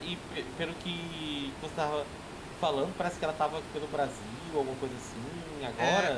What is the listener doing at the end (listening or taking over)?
taking over